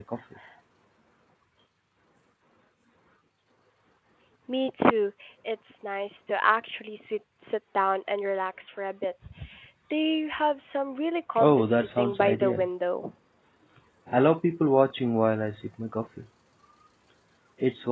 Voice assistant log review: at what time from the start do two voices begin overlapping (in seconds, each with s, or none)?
11.3 s